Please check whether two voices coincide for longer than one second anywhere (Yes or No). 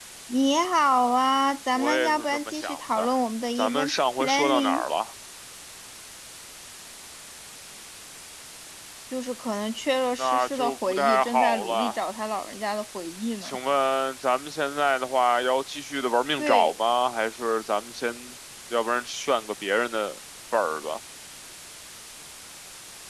Yes